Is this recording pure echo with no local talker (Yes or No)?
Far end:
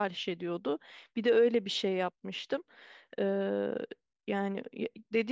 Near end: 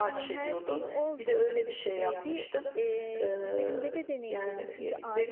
No